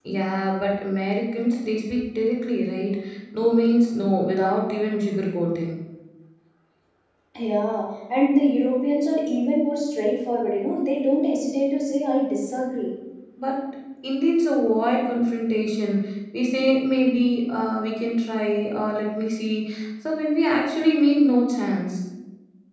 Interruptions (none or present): none